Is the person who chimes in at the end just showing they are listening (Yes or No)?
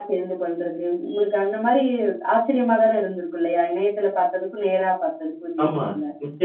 No